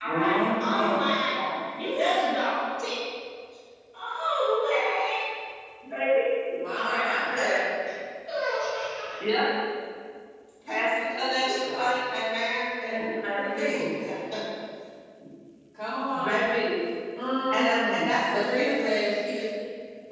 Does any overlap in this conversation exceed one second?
Yes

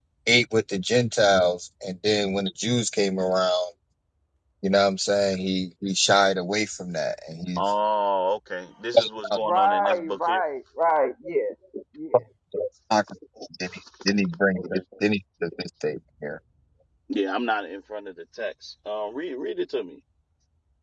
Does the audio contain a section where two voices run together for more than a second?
Yes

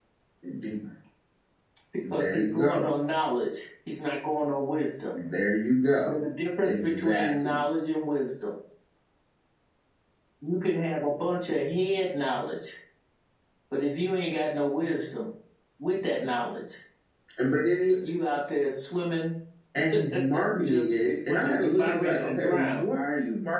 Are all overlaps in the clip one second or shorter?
No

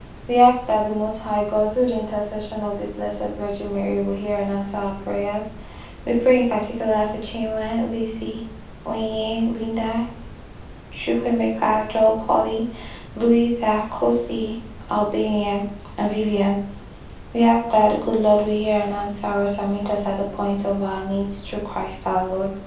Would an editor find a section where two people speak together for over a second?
No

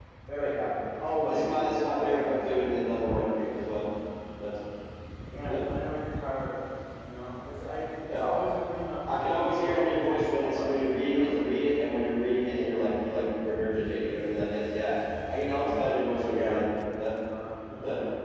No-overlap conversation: No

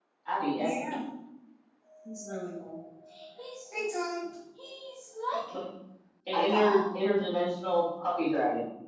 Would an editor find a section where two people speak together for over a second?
No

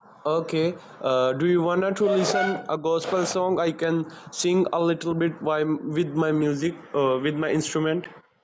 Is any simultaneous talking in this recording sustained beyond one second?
No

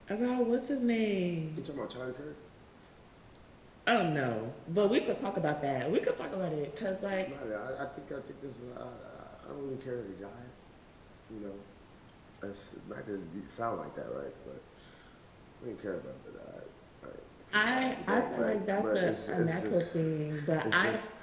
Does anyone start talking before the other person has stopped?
Yes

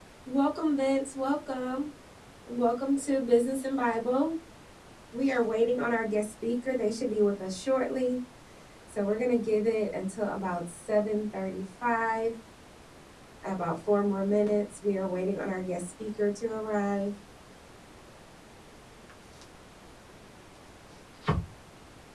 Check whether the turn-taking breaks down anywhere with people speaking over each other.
No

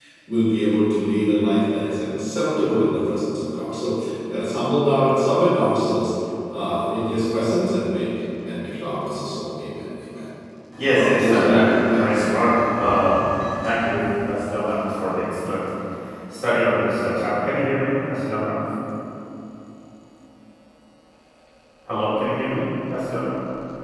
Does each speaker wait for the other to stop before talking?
No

